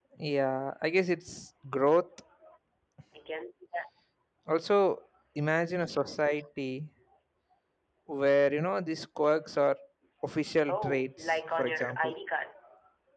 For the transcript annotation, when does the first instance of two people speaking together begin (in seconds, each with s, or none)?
10.7 s